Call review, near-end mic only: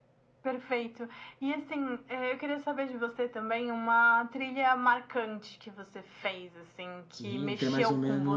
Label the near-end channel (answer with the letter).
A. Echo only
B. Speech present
B